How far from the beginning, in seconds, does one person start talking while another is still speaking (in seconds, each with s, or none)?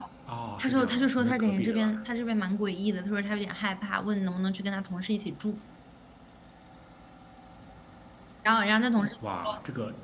0.6 s